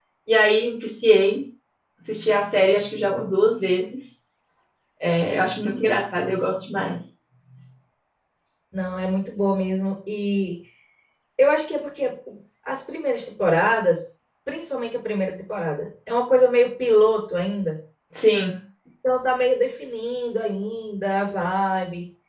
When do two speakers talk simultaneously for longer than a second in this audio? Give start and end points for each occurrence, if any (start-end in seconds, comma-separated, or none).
none